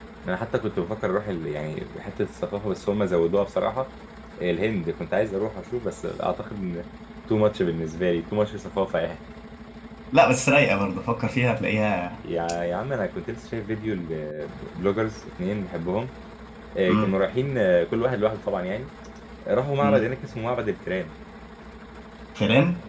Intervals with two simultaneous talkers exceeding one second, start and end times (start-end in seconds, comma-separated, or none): none